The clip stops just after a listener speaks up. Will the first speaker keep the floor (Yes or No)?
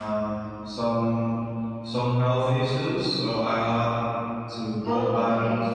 Yes